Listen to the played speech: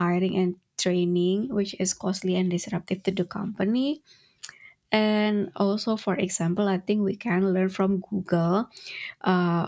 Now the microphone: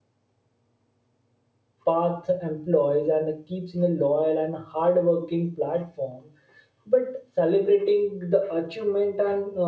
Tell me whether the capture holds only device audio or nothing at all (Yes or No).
No